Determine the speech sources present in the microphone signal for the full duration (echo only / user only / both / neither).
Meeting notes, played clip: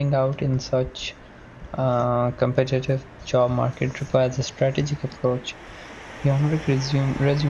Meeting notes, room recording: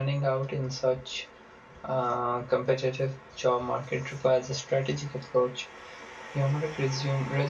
echo only